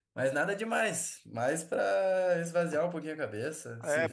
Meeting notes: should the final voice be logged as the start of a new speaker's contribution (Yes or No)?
Yes